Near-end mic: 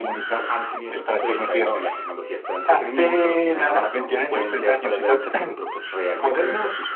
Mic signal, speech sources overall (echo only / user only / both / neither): both